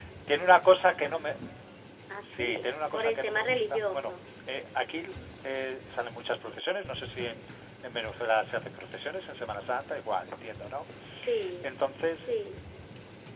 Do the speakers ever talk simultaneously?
Yes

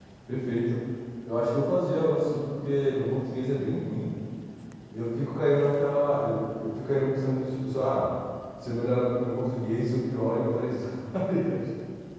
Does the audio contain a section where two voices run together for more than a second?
No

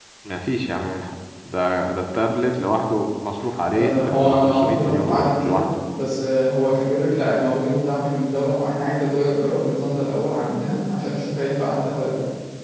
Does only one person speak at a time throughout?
No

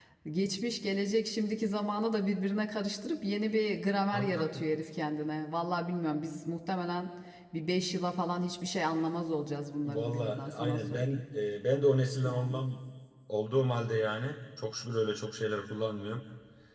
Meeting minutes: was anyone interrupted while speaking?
Yes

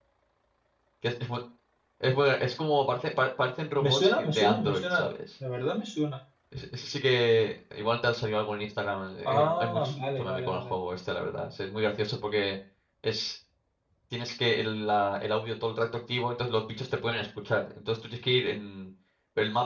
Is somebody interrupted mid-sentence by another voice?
Yes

